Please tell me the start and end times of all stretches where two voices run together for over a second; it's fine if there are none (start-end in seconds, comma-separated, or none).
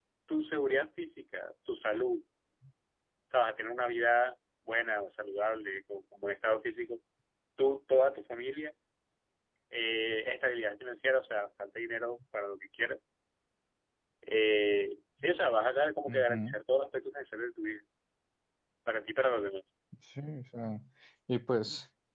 none